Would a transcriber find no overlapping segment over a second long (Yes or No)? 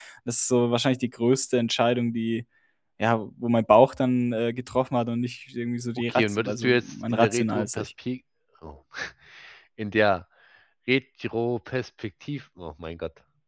No